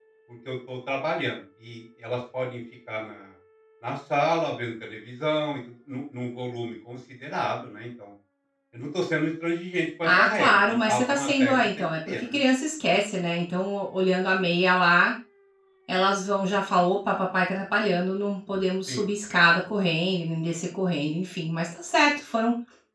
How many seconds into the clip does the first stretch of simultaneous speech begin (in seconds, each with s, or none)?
10.0 s